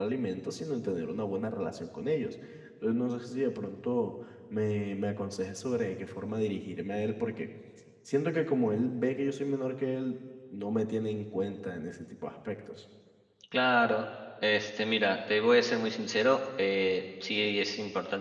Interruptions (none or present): none